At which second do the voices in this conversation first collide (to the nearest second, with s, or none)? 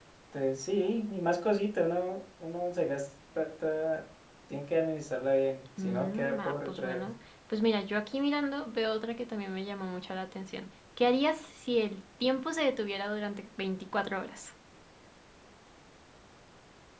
6 s